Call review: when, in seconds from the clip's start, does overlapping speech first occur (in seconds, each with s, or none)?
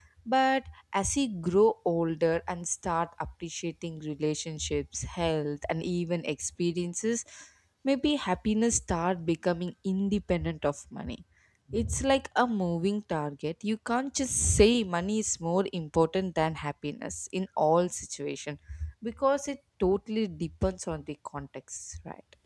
none